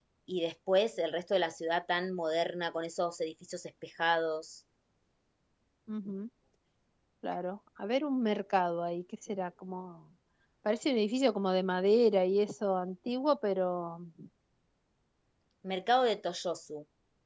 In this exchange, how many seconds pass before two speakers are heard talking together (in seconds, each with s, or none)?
none